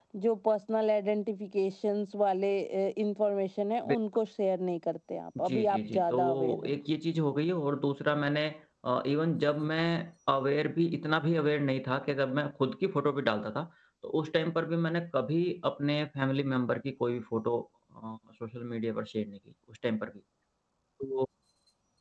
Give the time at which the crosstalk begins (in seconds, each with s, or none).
5.4 s